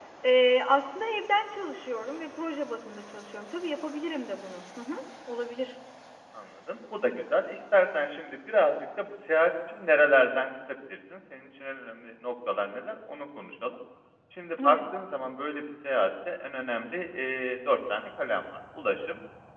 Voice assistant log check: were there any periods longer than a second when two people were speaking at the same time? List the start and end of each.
none

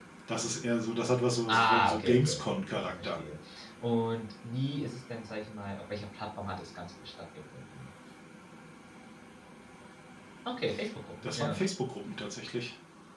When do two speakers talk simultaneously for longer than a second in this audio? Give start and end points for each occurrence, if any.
1.5-3.2

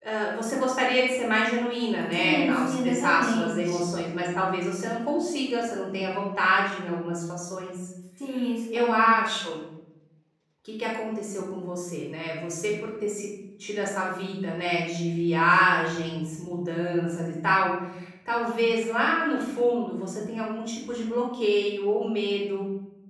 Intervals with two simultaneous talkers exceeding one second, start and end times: 2.1-3.7

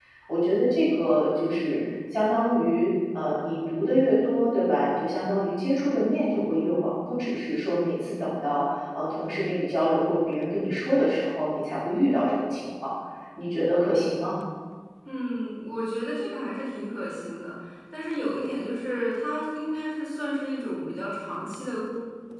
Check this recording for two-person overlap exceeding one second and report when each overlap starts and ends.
none

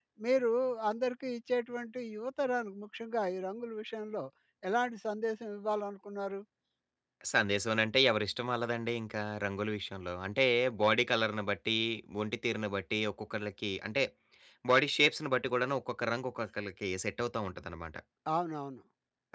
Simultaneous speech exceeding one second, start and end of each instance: none

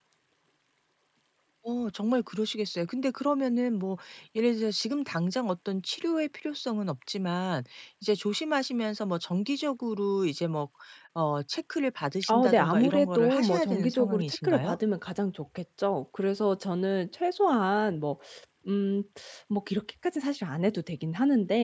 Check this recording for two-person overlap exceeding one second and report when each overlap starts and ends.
12.3-14.8

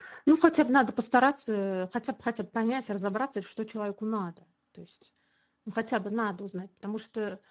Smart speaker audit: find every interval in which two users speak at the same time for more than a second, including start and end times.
none

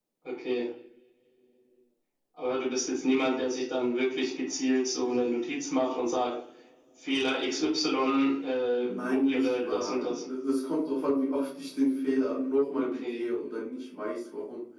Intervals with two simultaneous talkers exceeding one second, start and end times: 8.8-10.2

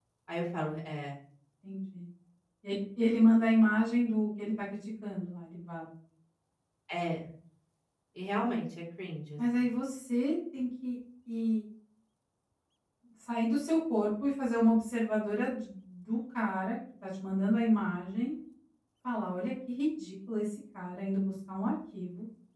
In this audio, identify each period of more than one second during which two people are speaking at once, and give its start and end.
none

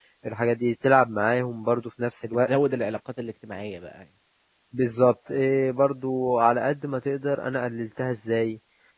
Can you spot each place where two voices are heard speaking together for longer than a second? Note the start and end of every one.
none

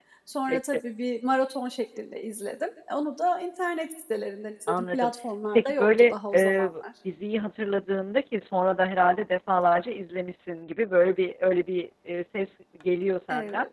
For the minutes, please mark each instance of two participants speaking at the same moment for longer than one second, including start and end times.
5.5-6.8

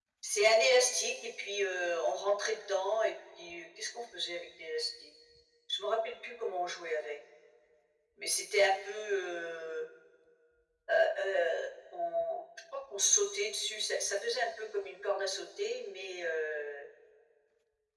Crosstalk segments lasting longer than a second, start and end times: none

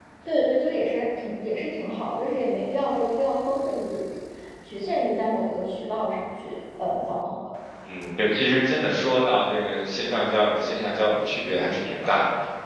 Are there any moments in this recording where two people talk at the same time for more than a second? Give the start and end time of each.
none

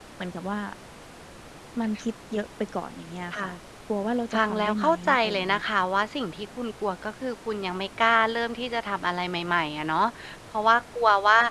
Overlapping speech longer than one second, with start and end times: 4.3-5.6

